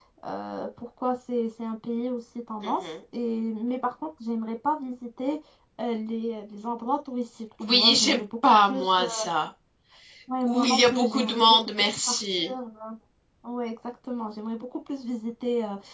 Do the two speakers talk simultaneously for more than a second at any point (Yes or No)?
Yes